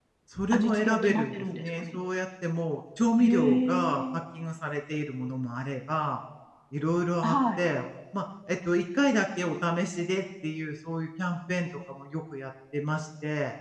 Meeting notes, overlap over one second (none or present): present